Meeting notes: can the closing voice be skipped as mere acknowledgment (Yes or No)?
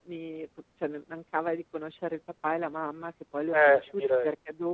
Yes